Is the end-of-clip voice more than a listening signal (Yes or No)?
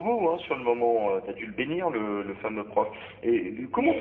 No